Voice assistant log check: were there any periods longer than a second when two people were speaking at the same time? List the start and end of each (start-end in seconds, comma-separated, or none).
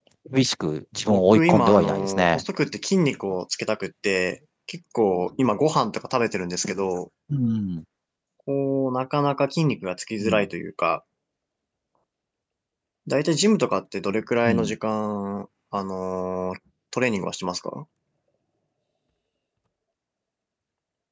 1.1-2.4